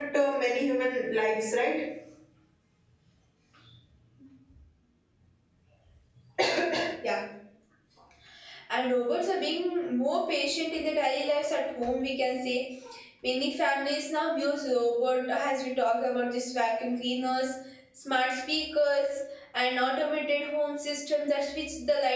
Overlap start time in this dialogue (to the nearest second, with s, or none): none